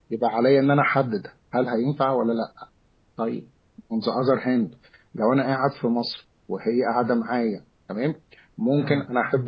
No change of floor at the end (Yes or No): Yes